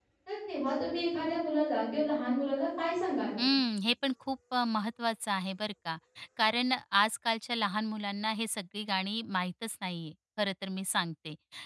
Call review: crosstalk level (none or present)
none